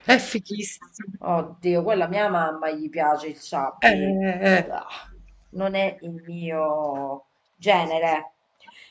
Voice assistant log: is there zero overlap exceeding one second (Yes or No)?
Yes